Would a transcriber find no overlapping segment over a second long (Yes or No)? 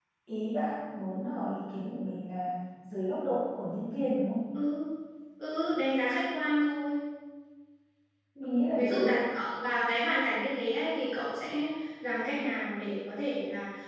Yes